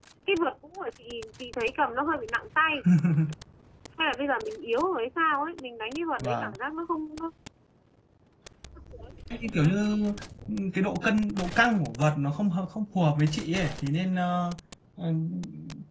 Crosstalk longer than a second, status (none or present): none